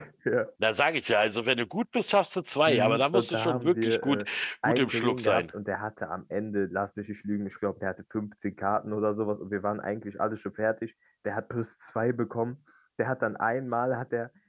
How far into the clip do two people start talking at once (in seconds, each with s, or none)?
2.7 s